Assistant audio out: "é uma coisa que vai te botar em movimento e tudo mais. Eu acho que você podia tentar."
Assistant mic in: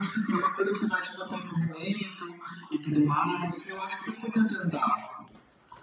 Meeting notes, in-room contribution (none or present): none